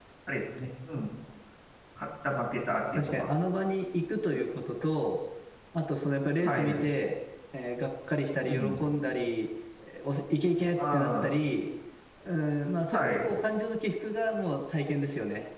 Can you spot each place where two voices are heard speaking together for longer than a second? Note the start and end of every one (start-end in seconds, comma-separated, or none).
none